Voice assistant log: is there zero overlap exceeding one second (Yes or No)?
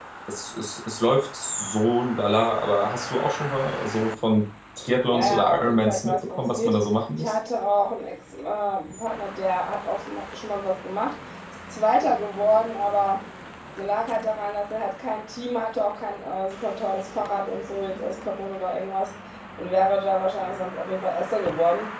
No